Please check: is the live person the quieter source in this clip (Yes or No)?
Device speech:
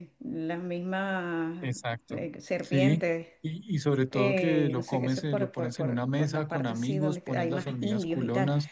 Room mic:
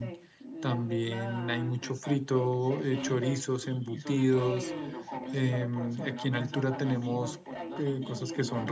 No